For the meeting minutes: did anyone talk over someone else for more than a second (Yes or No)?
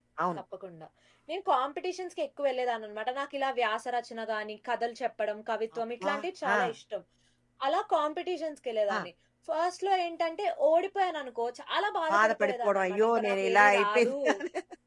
Yes